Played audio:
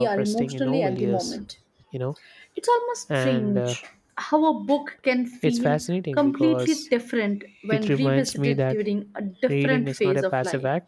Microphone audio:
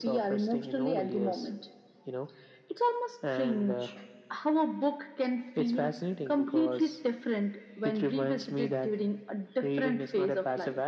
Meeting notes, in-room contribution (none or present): none